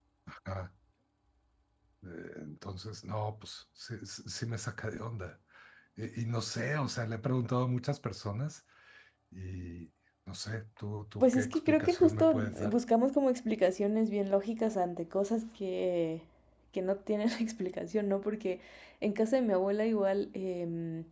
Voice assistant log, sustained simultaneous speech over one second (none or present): present